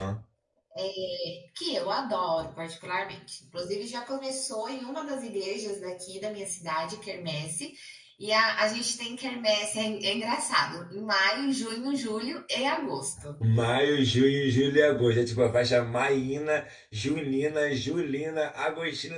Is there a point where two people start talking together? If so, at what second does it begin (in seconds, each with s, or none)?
none